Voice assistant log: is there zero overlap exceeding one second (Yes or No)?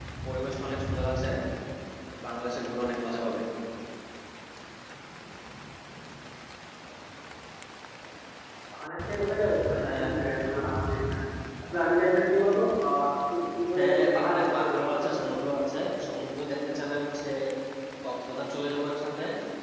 No